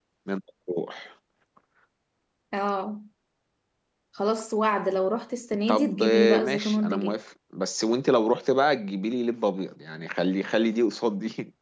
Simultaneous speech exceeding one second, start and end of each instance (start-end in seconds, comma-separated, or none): 5.7-7.2